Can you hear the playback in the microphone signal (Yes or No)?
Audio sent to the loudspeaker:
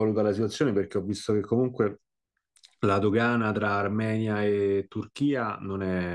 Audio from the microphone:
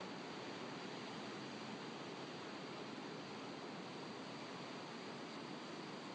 No